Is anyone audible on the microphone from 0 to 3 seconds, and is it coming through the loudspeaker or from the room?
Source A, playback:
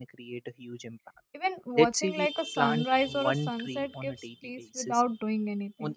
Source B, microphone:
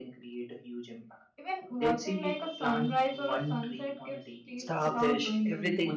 echo only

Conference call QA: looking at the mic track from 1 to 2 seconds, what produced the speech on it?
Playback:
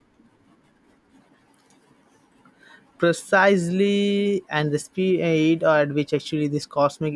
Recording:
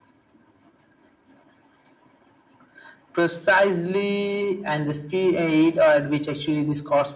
neither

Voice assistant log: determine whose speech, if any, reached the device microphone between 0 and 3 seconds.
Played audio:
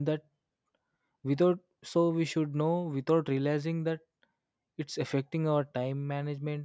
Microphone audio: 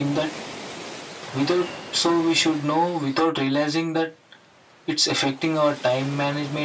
echo only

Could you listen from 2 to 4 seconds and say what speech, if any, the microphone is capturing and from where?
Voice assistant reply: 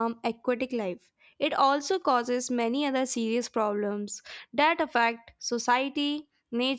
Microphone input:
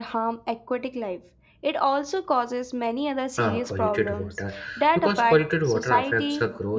both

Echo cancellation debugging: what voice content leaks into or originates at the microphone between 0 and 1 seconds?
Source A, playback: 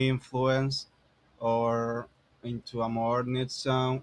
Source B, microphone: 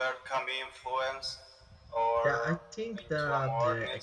echo only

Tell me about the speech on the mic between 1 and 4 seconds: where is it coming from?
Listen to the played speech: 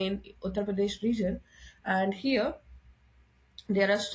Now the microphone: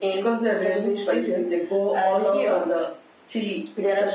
both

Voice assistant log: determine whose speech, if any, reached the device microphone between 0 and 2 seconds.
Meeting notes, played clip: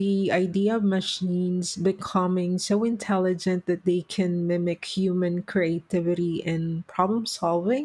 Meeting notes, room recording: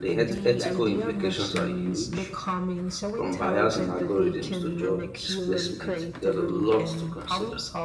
both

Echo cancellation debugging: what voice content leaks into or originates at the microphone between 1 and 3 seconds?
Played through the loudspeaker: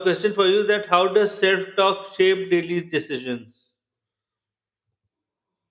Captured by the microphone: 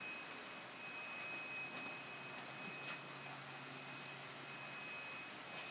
neither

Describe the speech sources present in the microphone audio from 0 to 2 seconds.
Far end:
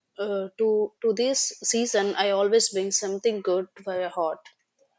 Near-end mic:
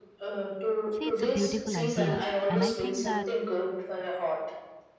both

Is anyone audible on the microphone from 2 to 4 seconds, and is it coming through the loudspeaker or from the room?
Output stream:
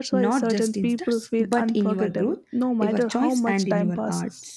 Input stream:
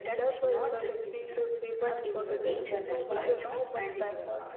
both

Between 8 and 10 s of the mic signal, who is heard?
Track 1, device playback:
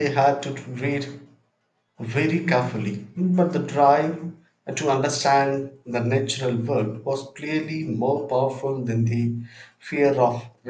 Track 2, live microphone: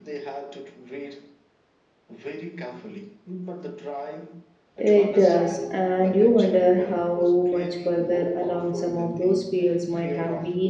both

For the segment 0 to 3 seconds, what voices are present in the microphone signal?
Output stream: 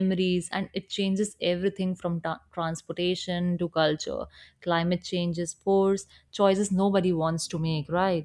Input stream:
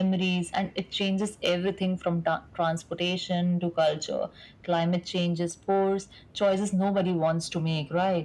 echo only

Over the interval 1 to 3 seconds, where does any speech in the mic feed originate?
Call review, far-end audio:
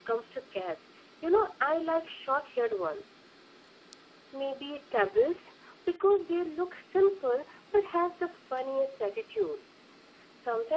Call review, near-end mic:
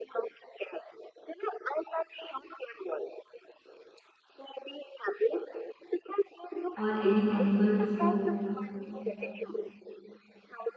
echo only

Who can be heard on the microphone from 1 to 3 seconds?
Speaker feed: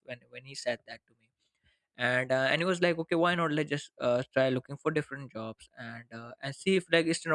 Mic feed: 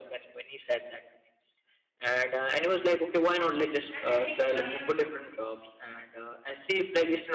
echo only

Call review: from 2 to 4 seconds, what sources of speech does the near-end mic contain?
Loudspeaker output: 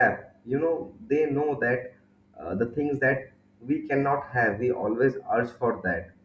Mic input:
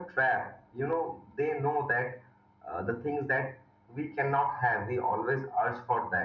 echo only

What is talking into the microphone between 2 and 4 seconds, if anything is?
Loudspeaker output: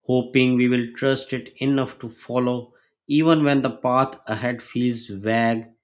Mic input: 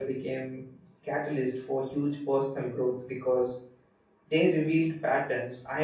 user only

